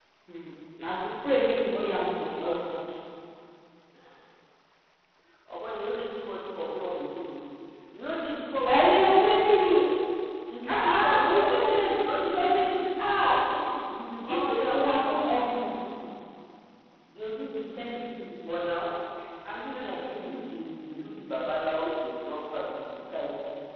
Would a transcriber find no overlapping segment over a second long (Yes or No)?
No